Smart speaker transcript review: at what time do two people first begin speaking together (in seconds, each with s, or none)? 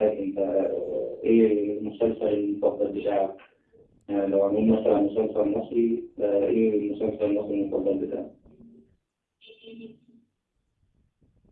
none